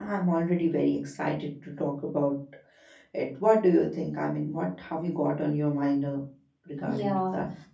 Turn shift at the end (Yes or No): Yes